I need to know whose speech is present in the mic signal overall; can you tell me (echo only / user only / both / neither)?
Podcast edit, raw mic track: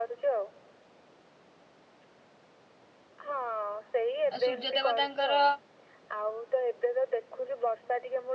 both